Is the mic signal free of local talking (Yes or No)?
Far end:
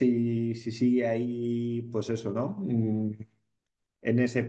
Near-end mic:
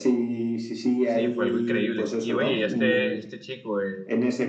No